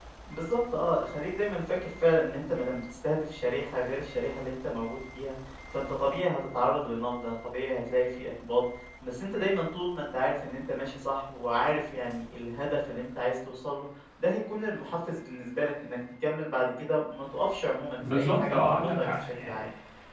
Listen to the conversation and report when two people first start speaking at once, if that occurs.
18.0 s

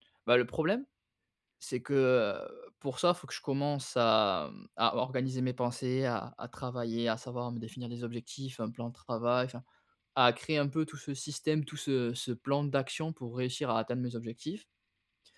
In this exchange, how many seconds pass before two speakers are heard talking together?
none

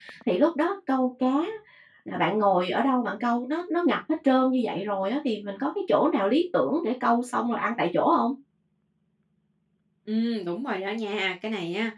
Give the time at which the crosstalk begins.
none

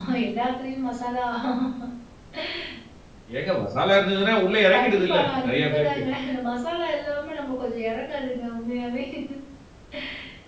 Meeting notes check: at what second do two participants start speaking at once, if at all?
4.7 s

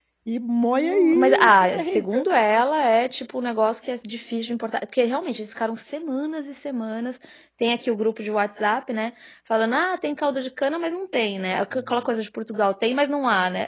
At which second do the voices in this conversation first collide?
0.7 s

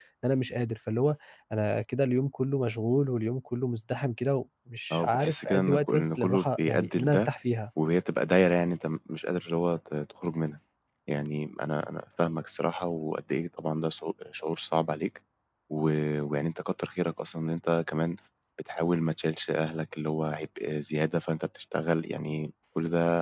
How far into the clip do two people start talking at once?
4.9 s

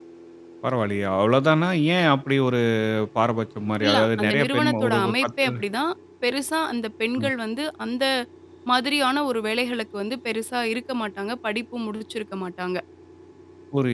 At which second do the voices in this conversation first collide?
3.8 s

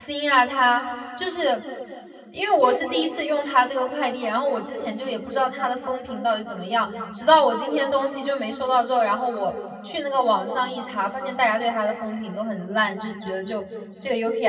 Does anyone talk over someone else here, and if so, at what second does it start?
none

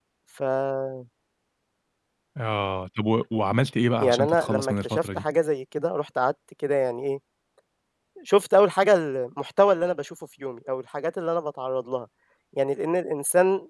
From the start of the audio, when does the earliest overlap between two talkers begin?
4.0 s

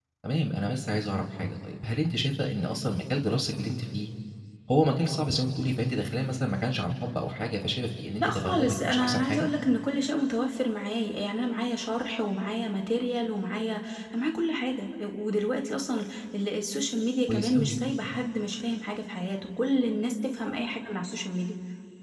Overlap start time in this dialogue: 8.2 s

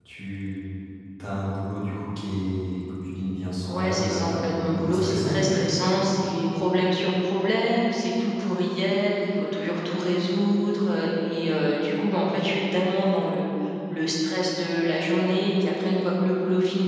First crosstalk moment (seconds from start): 3.7 s

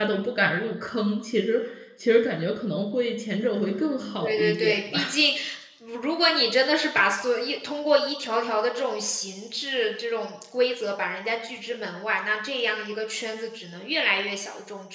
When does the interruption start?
3.5 s

